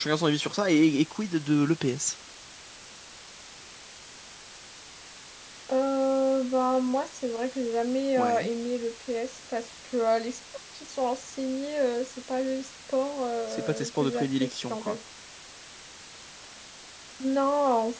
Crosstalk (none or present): present